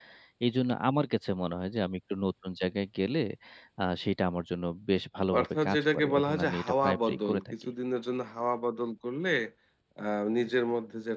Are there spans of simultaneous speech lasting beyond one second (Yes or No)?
Yes